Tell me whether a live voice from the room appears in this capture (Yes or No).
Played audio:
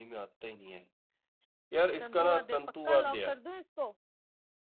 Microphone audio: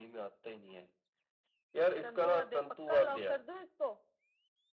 No